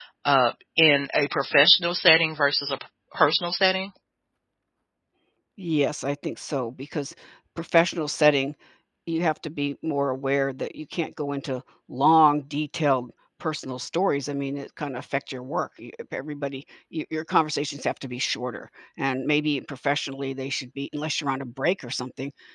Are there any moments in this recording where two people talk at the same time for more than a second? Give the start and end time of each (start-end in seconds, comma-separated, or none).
none